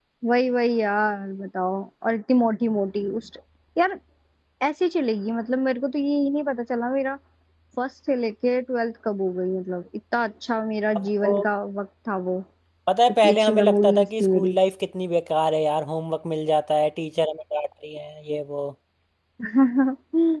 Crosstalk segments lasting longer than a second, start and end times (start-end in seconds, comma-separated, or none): 13.2-14.6